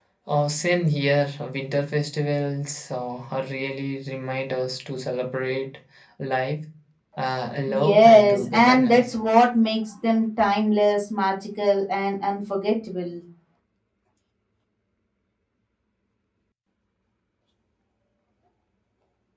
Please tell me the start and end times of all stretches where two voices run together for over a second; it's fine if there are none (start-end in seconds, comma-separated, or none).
7.8-9.1